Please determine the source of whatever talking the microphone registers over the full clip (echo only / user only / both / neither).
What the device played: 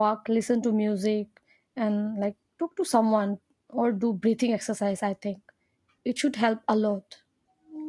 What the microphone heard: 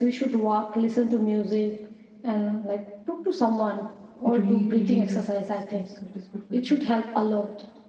both